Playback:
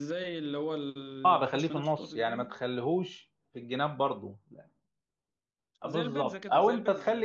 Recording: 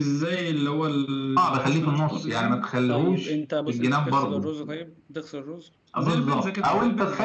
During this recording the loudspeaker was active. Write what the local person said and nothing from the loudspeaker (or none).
طيب انت بص انت بتغسل الرز طيب بتغسل الرز